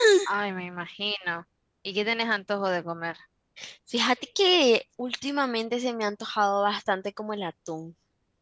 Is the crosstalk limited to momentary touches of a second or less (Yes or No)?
Yes